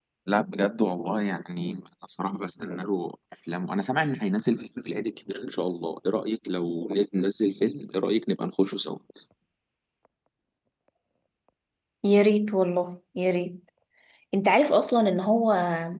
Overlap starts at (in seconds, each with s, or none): none